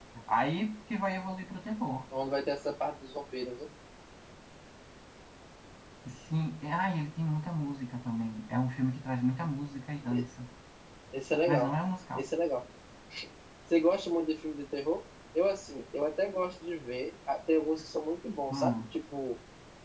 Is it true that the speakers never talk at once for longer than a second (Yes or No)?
Yes